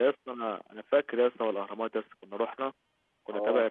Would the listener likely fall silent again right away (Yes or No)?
Yes